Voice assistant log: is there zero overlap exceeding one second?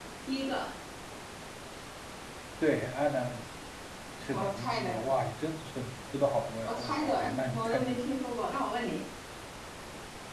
No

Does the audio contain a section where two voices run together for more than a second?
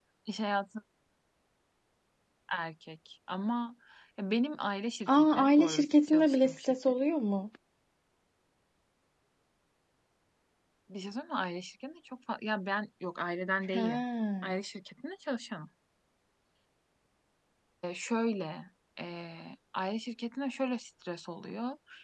Yes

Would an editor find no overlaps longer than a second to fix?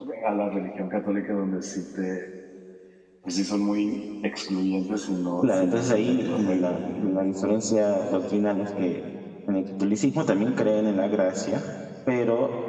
No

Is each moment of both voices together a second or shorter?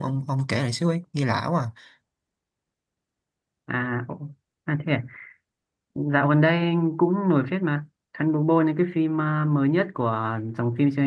Yes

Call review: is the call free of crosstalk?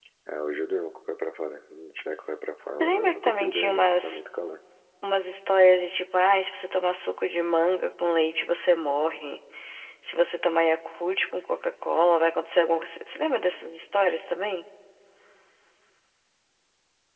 No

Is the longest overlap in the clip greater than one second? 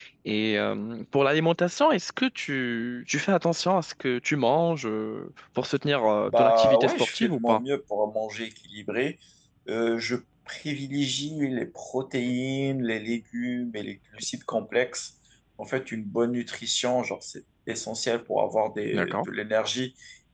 Yes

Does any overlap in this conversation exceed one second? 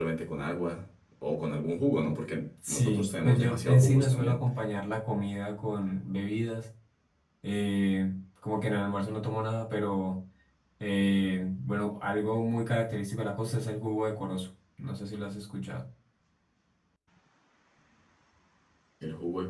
Yes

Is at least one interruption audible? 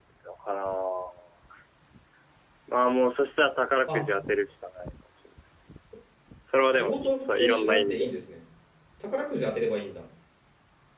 Yes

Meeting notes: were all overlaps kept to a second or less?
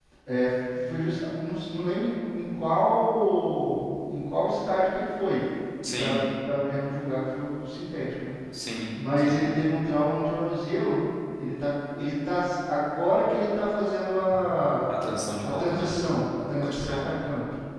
Yes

